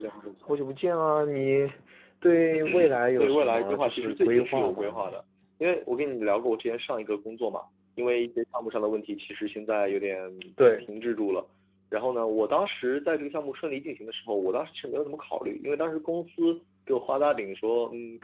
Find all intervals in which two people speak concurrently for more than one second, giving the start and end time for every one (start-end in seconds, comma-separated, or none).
3.2-5.2